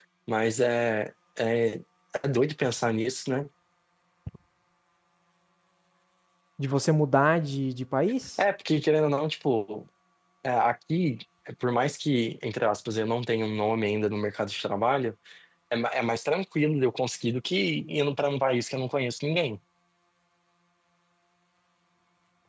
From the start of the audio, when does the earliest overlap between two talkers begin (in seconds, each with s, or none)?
none